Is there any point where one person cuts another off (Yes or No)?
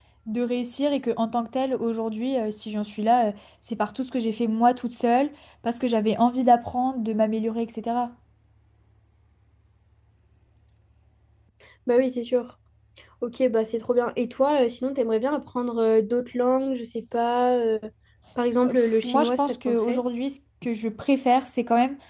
Yes